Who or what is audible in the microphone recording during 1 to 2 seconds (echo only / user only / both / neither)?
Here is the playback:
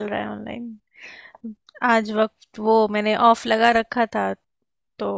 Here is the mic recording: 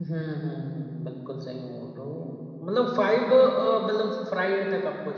user only